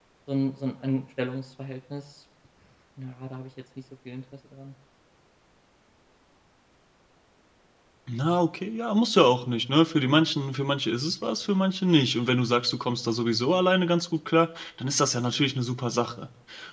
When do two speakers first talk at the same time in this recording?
none

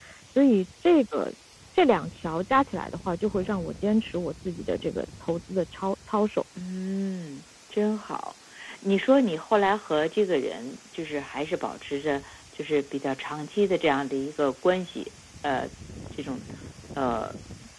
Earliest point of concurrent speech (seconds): none

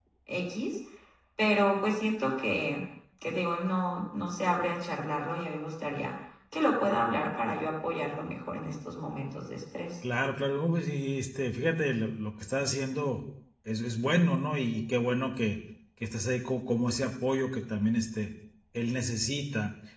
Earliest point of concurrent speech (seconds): none

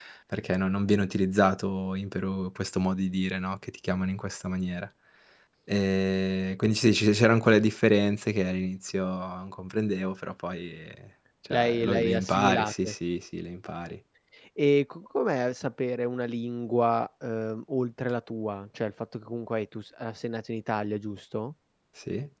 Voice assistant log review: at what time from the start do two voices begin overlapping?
12 s

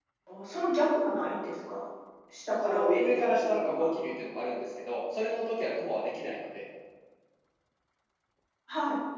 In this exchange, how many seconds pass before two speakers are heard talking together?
3 s

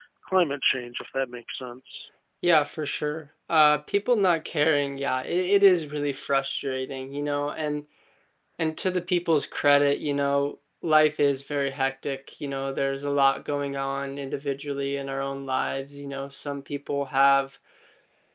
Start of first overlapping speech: none

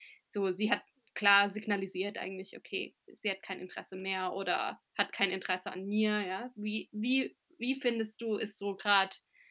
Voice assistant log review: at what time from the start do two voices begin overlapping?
none

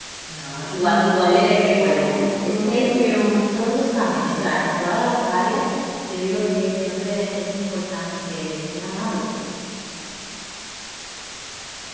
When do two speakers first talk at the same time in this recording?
1 s

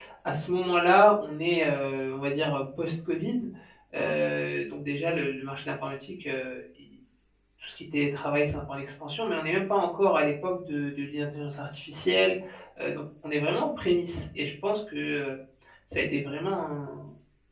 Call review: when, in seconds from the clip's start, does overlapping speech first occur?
none

